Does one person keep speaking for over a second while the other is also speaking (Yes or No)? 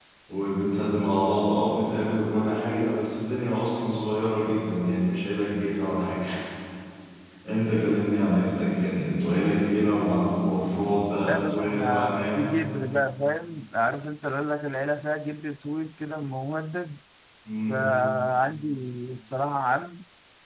Yes